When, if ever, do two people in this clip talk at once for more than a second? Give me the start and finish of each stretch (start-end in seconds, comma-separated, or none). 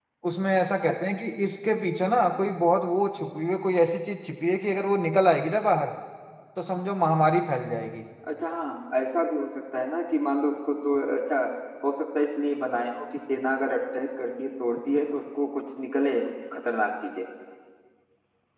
none